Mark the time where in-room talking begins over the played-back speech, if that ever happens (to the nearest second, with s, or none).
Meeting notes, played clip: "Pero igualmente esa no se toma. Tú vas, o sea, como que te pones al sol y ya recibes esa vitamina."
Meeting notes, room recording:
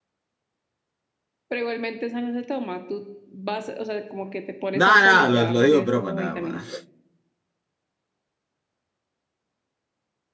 5 s